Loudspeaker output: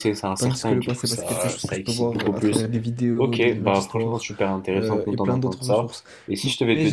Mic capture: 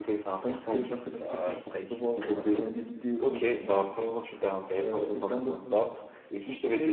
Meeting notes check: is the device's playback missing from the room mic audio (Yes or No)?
No